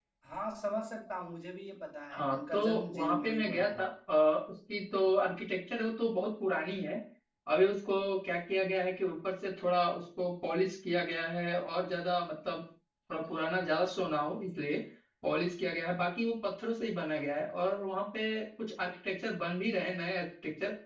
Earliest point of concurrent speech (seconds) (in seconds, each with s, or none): 2.1 s